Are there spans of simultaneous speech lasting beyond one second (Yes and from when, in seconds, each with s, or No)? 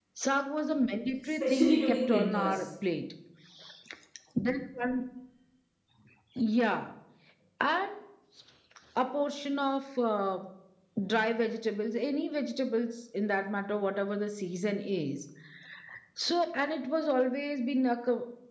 Yes, from 1.2 s